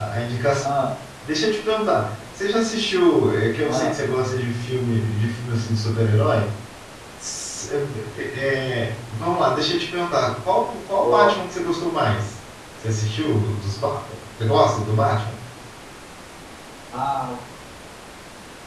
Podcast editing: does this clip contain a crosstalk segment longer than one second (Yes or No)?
No